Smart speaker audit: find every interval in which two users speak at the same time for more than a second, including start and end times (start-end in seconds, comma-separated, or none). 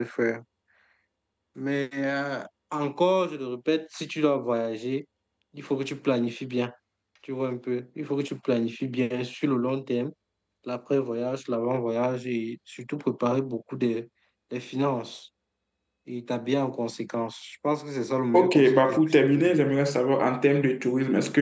18.3-19.6